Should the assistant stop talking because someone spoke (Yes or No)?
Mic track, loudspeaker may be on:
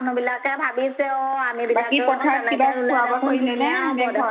Yes